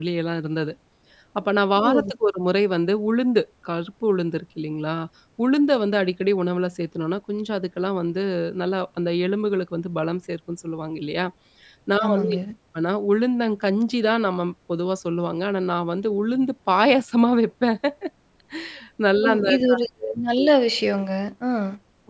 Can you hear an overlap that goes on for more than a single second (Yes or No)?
No